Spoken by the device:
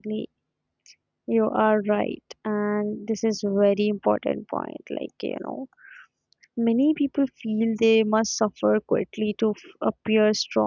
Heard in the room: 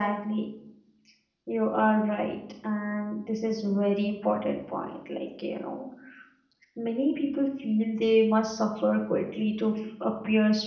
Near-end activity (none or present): none